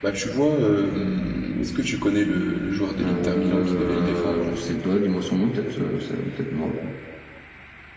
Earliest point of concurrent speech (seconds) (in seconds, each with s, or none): 3.0 s